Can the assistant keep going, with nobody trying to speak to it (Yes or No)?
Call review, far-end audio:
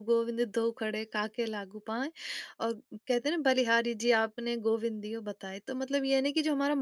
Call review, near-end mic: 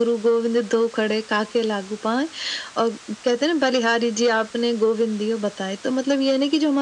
Yes